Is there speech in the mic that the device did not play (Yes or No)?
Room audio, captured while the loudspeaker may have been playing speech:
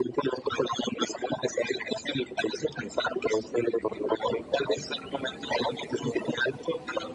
No